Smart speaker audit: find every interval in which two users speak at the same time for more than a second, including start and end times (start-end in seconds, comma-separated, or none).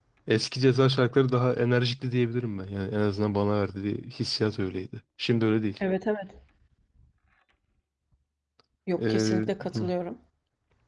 none